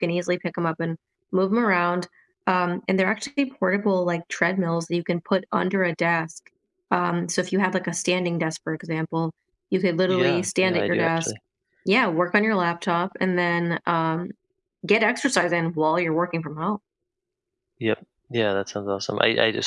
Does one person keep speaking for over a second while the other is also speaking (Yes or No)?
Yes